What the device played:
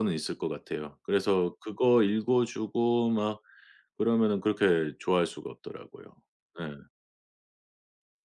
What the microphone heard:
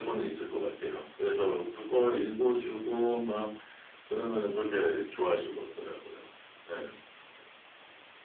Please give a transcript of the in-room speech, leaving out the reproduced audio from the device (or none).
none